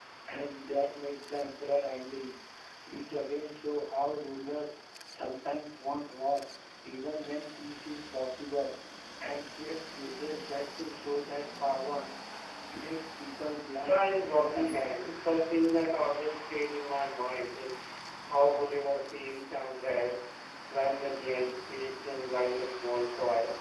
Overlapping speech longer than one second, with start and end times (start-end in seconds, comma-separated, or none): 13.8-15.1